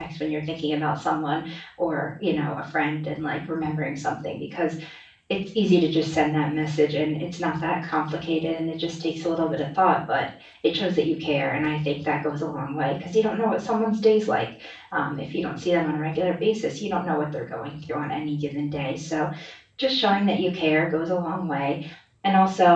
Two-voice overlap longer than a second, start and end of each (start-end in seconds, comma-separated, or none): none